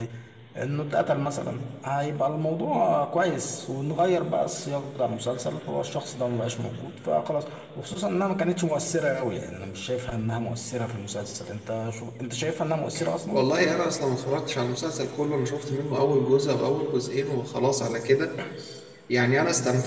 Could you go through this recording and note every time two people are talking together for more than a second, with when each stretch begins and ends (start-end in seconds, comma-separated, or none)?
none